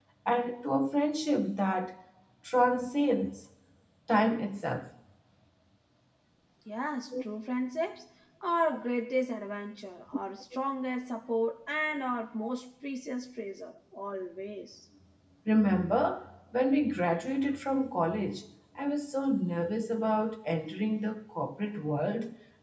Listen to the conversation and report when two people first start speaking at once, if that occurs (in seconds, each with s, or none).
none